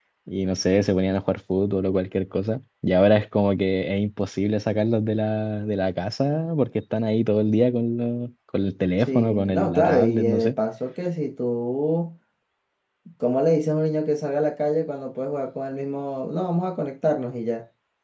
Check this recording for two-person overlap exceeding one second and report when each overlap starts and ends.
9.1-10.5

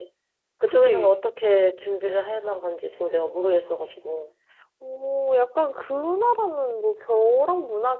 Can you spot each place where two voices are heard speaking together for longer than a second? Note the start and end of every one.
none

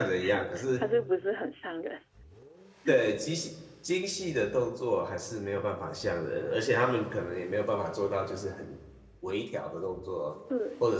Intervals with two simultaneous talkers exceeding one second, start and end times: none

